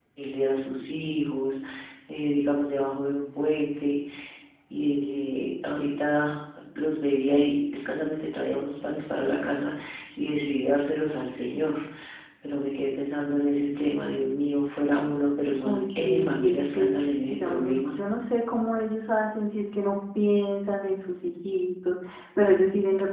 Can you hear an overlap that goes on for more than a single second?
Yes, from 15.6 s

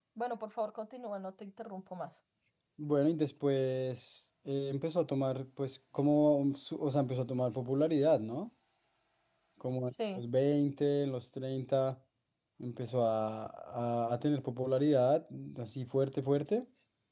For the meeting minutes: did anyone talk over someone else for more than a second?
No

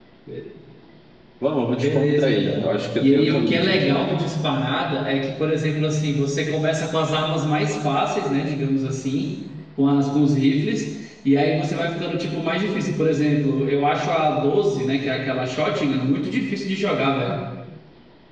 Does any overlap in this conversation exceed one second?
Yes, from 1.7 s

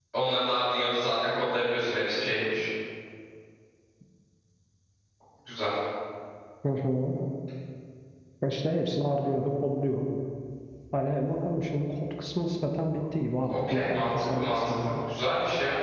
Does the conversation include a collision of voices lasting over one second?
Yes, from 13.5 s

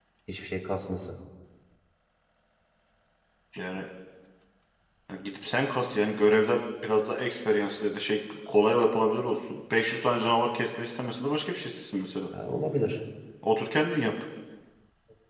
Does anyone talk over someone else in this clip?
No

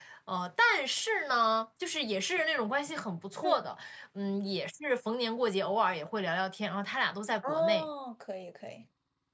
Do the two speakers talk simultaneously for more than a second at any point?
No

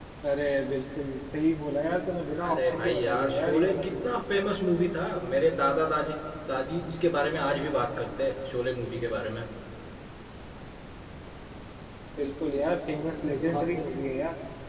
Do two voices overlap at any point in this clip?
Yes, from 2.5 s

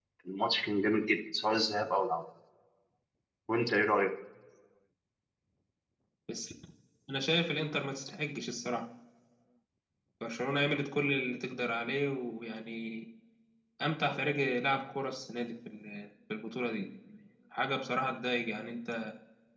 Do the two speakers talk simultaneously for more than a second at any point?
No

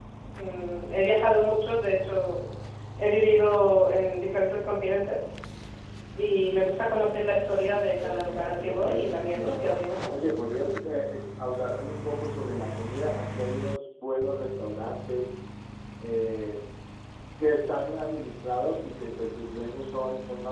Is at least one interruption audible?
Yes, from 8.0 s

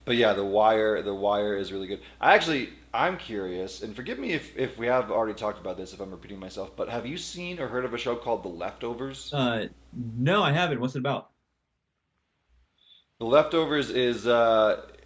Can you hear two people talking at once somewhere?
No

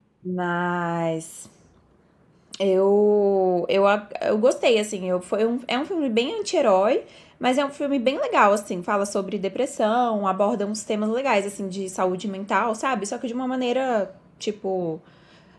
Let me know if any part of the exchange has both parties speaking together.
No

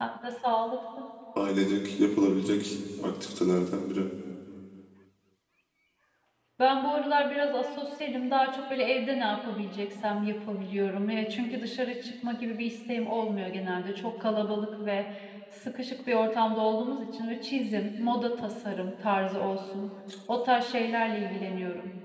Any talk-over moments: No

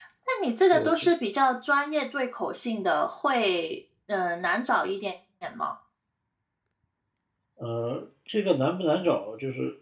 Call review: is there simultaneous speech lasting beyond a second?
No

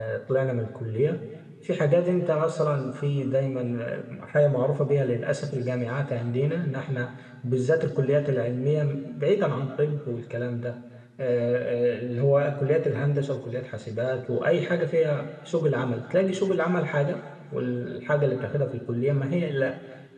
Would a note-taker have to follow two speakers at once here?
No

